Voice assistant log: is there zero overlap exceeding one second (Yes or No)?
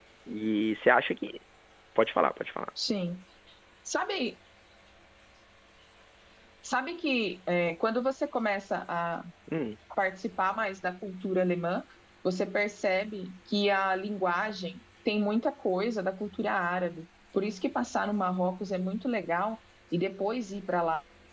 Yes